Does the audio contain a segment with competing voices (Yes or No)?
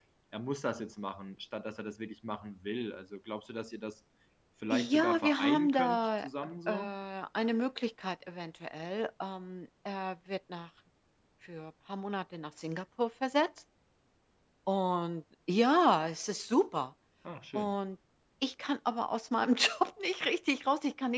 Yes